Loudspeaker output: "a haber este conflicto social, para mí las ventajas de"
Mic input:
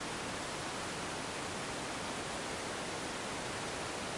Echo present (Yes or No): No